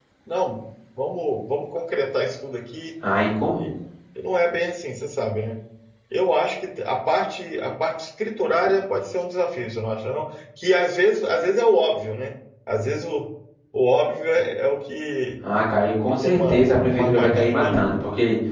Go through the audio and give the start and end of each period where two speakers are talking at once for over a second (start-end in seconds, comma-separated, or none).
16.1-17.8